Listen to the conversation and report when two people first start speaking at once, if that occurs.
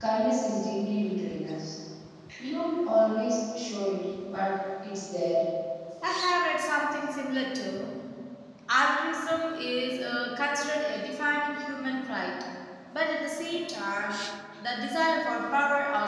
none

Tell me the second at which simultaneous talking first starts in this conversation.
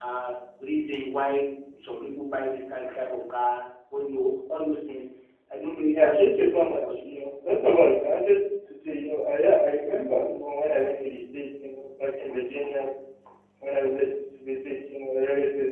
5.9 s

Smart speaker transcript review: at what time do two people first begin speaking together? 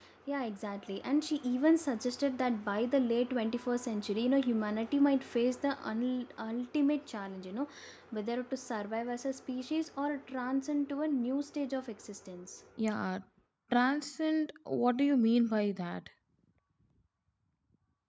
none

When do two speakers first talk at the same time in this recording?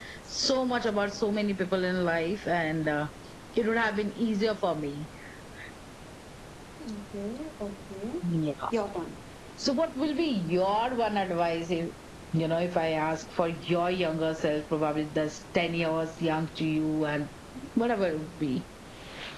none

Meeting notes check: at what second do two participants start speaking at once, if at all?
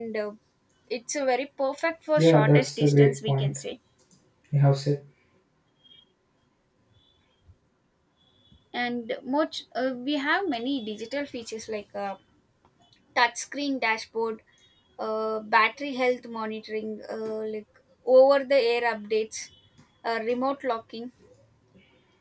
2.2 s

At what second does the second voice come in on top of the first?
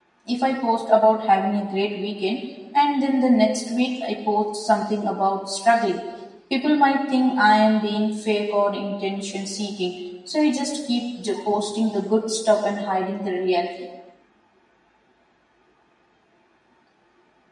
none

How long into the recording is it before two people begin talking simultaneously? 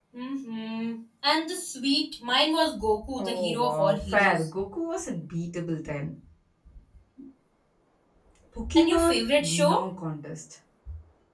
3.2 s

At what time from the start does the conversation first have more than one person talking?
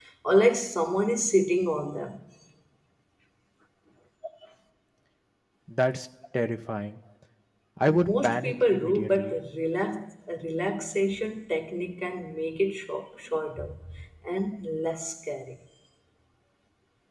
7.9 s

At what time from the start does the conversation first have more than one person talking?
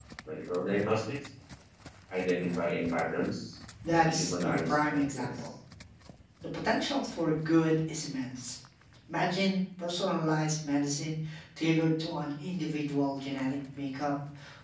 3.8 s

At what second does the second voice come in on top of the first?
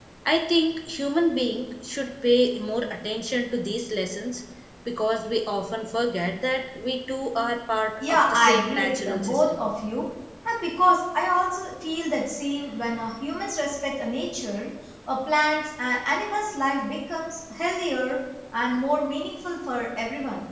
8.0 s

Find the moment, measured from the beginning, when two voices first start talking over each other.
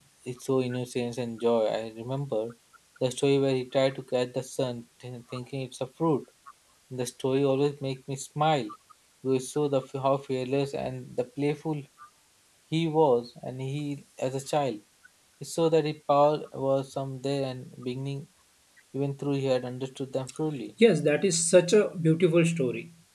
none

